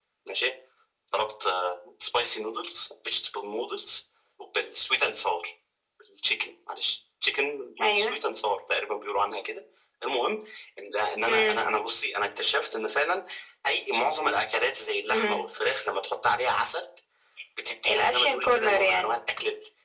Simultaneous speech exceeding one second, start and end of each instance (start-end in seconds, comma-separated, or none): 17.9-19.1